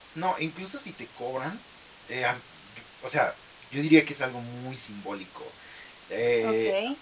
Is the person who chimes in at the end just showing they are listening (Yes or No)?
No